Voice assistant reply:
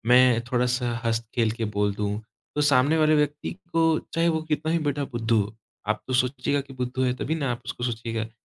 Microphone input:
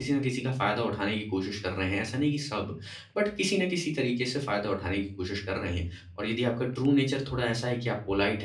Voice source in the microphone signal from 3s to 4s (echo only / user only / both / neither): user only